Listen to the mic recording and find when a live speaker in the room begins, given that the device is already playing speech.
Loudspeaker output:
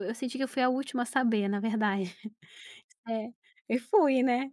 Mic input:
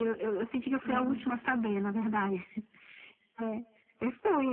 0.8 s

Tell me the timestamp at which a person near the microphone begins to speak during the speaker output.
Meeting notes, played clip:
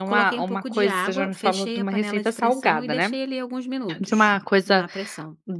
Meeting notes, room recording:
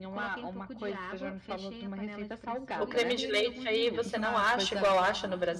2.8 s

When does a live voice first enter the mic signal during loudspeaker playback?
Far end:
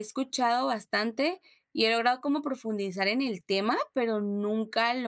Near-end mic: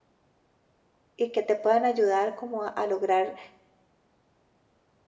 1.2 s

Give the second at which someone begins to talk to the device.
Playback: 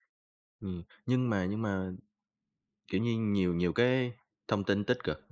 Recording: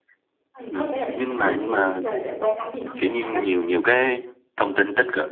0.5 s

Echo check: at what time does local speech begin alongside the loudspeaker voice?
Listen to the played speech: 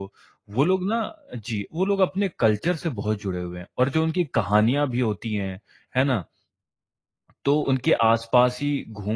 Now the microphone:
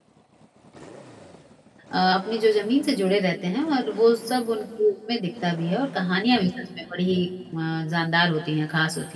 1.9 s

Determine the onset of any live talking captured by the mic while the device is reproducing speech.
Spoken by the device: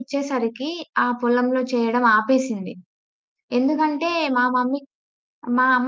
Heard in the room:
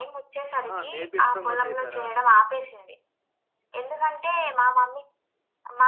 0.6 s

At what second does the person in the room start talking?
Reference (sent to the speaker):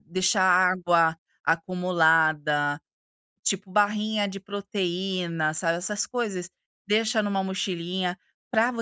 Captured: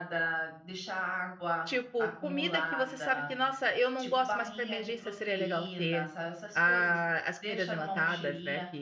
1.6 s

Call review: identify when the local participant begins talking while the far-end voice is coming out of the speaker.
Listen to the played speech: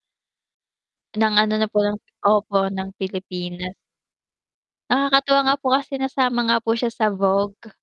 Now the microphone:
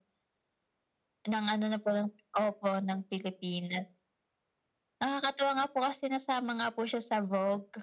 none

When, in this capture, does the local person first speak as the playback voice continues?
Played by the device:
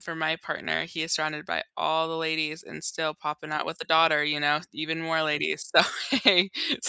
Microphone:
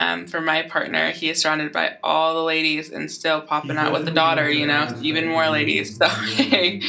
3.6 s

